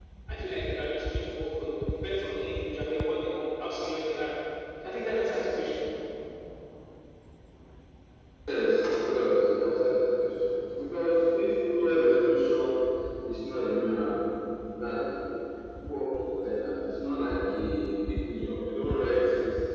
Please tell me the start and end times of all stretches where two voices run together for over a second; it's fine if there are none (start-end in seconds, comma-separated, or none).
none